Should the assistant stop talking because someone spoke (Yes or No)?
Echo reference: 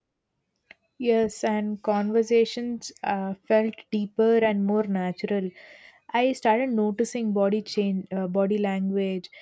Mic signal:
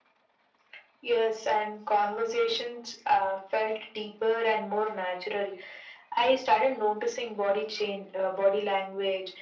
No